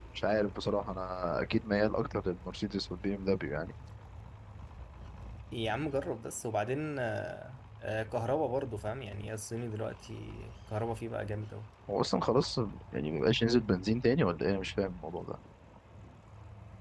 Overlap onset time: none

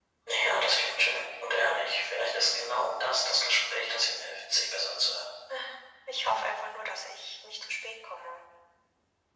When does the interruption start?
none

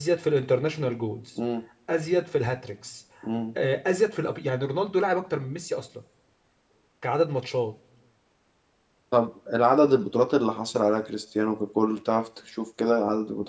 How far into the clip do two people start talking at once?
none

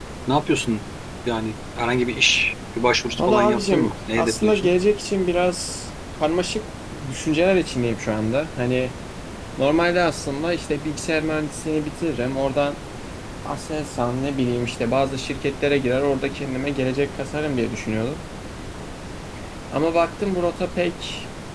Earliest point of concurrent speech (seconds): 3 s

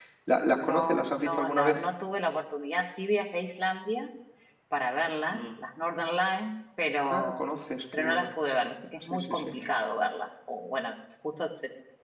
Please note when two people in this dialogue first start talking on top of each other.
1 s

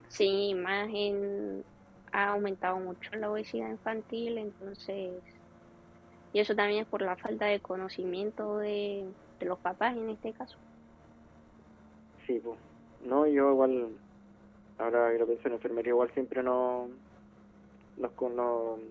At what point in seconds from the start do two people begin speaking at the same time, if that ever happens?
none

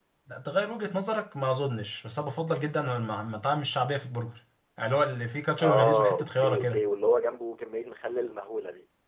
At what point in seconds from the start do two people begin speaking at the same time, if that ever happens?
6 s

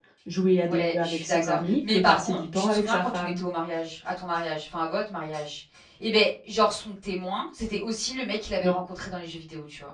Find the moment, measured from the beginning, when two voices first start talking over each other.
1 s

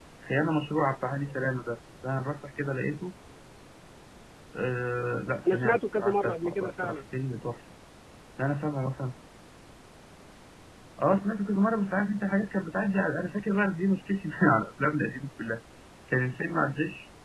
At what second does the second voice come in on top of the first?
5 s

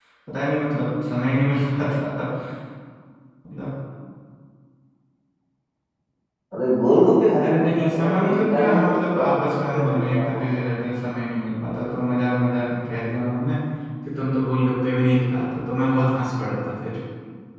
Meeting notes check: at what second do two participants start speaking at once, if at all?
7 s

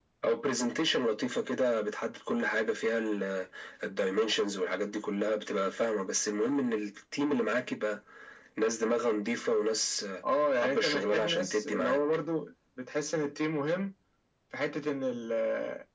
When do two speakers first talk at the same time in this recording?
11 s

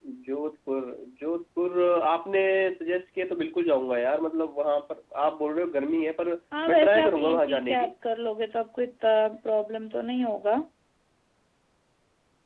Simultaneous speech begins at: 7 s

